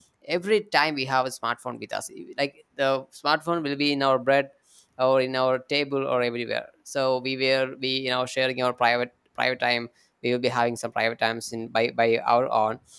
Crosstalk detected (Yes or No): No